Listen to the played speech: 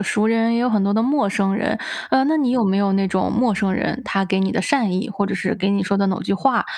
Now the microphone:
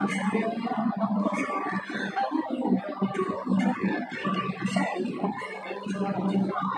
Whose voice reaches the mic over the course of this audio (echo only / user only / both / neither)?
echo only